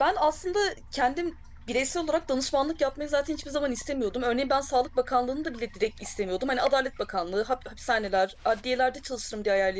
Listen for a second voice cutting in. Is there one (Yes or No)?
No